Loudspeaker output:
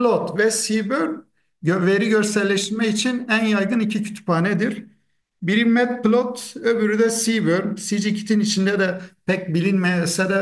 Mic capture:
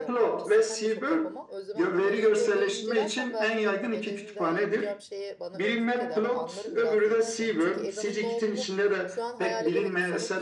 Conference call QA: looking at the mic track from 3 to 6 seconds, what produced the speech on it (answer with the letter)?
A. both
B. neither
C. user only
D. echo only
A